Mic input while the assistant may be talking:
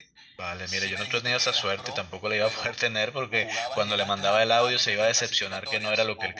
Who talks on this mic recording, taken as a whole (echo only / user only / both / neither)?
both